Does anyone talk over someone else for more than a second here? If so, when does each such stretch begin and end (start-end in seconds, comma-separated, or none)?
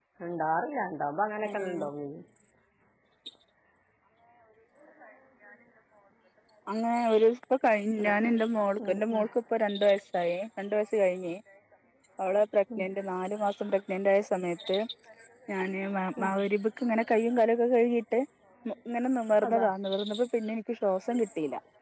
none